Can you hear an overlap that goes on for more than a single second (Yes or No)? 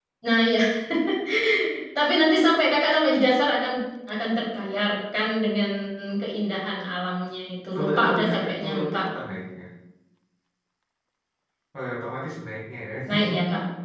Yes